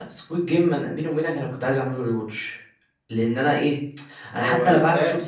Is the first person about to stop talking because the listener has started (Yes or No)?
No